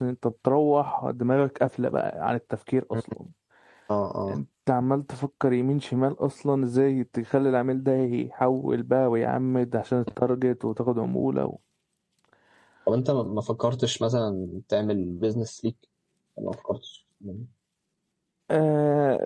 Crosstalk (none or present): none